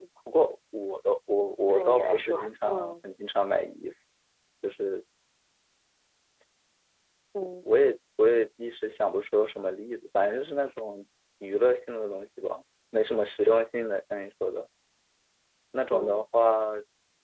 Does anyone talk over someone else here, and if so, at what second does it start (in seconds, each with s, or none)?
1.7 s